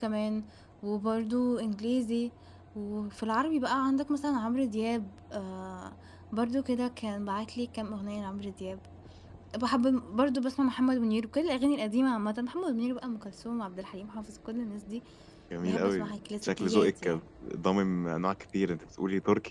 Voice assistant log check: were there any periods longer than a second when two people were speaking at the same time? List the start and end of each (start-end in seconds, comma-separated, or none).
15.6-17.2